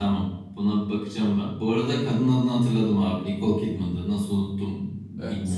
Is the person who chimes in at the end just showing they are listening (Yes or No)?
Yes